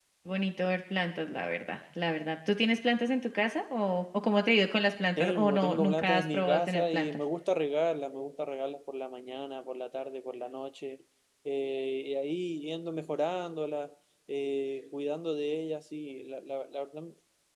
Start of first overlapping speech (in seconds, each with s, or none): 5.2 s